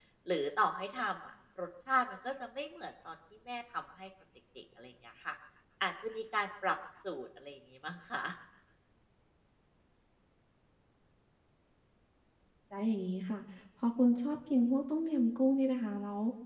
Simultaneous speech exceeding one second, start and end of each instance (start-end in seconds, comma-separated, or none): none